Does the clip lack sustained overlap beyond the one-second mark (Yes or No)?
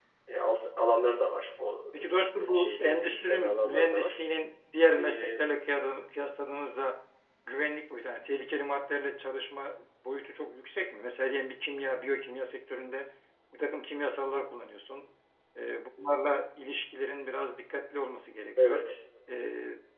No